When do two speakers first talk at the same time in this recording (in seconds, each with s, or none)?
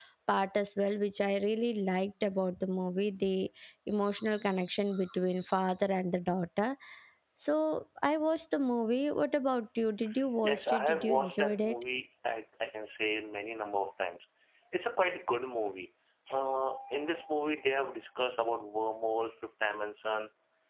10.4 s